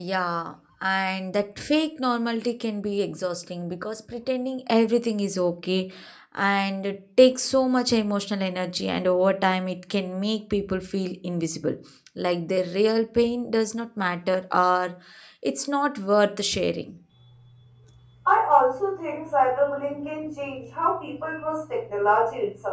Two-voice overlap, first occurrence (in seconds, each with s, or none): none